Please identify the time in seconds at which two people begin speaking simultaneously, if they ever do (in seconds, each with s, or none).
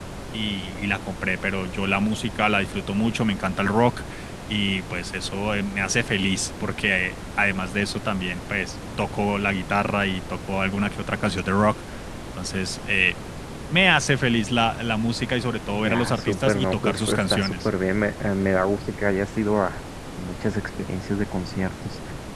15.7 s